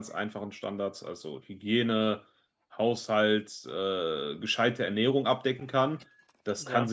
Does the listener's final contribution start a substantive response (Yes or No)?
No